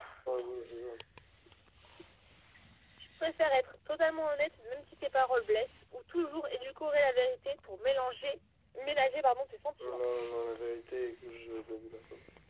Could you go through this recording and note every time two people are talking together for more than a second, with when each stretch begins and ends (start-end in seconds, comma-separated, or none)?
none